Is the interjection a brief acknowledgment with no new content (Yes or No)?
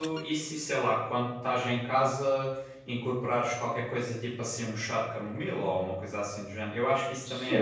No